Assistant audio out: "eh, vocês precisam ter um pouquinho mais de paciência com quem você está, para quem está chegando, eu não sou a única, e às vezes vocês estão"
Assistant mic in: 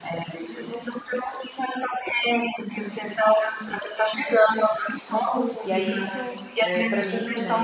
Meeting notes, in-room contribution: present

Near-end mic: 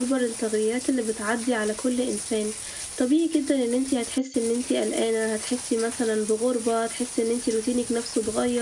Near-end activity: present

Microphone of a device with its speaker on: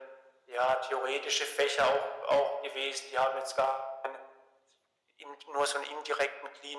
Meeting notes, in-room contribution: none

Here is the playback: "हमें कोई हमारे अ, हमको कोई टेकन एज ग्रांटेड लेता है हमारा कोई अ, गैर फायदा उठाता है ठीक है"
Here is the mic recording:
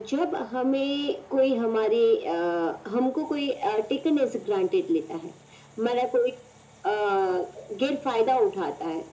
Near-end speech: none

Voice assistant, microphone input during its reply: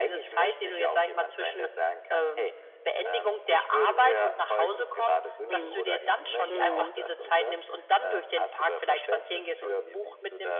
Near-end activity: present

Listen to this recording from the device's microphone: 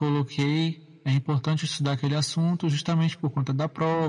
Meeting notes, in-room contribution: none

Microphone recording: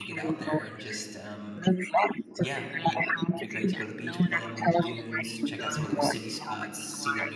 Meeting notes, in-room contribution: present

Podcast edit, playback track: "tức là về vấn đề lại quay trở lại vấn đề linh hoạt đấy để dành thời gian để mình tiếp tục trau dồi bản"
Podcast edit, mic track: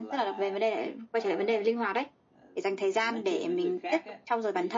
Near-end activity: present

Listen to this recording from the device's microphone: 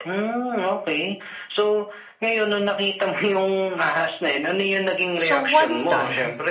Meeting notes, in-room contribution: present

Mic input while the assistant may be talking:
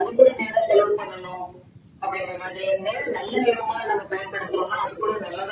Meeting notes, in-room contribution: none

